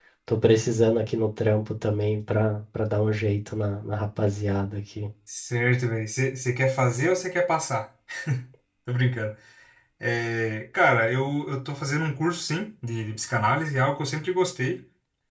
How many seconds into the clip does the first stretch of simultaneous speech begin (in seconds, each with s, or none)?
none